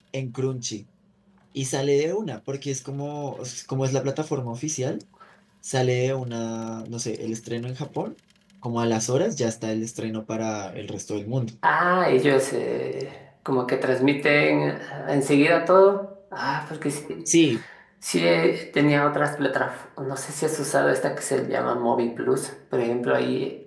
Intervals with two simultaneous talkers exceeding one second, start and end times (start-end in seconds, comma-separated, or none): none